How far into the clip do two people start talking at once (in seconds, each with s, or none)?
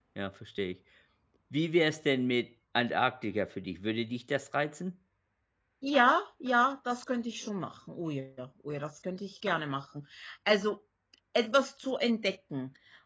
none